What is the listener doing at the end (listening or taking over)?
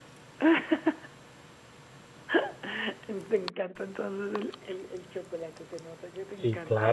taking over